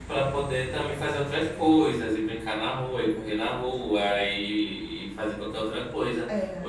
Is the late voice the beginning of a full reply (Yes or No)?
No